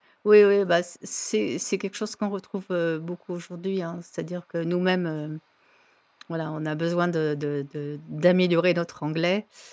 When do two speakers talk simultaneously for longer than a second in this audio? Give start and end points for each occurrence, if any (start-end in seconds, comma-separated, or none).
none